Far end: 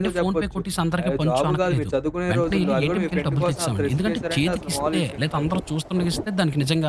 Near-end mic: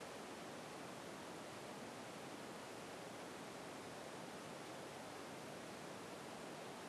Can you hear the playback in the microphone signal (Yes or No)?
No